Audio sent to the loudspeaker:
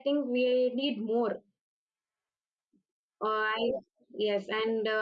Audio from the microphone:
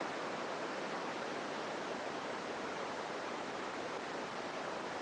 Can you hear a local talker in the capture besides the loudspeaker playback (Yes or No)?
No